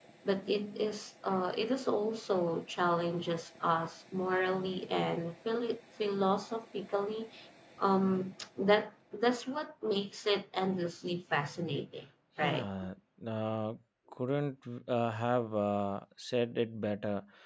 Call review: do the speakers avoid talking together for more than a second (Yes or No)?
Yes